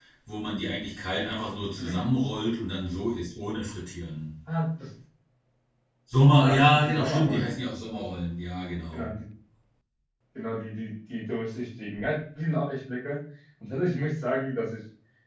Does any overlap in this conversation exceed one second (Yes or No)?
Yes